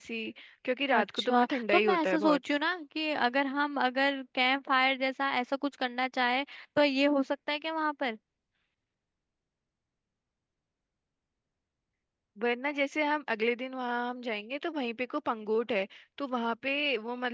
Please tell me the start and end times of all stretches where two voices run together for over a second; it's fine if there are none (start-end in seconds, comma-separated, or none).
0.9-2.4